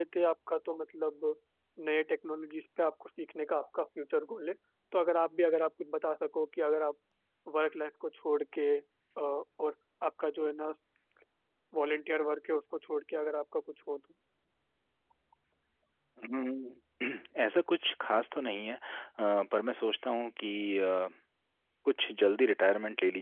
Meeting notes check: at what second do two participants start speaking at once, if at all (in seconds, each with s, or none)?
none